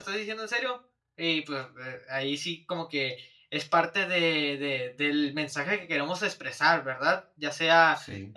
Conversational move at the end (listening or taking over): listening